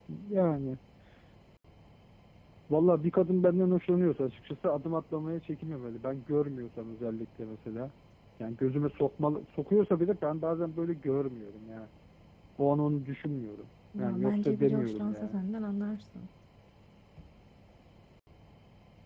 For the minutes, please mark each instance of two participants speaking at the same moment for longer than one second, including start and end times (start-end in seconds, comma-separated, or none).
14.0-15.4